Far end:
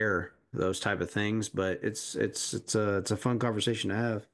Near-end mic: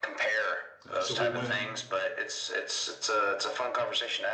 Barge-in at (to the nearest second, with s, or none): 1 s